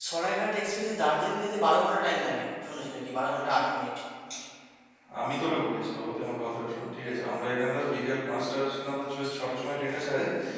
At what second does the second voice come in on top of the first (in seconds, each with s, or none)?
none